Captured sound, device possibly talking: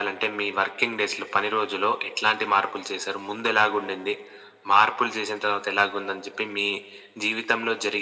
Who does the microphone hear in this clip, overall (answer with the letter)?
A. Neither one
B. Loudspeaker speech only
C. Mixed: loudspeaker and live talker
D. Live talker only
B